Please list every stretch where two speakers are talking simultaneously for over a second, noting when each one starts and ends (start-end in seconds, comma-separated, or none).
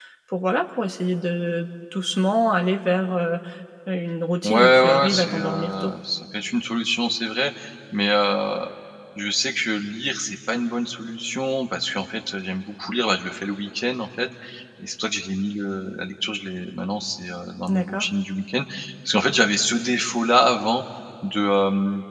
4.4-5.9